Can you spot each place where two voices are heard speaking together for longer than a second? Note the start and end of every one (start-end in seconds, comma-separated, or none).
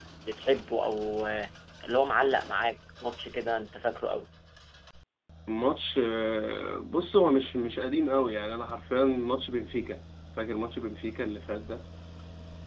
none